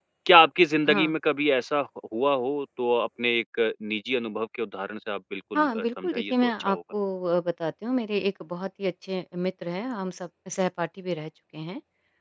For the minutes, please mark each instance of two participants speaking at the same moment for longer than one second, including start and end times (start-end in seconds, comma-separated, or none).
5.5-6.8